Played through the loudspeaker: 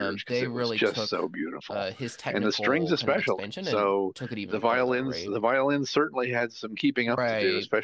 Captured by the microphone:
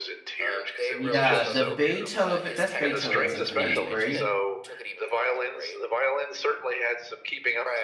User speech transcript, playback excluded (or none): Yeah, the Beethoven, that's Beethoven Symphony, right?